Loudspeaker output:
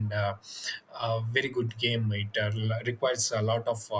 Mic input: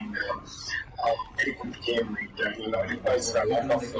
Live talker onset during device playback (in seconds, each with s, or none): 2.7 s